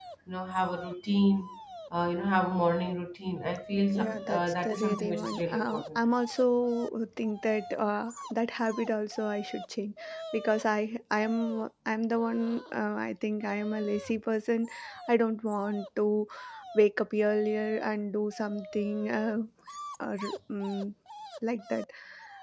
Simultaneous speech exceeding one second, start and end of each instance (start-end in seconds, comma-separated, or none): 4.0-6.0